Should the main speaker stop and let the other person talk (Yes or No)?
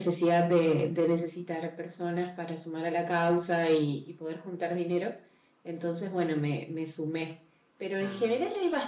No